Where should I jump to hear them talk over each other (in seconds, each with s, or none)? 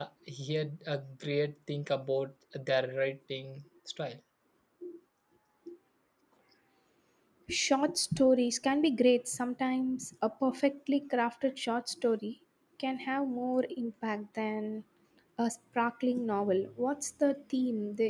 none